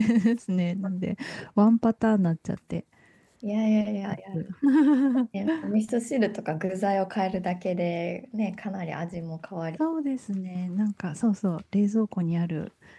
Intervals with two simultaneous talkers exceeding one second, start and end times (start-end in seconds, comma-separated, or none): none